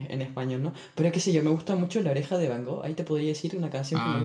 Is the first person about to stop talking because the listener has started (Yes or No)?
No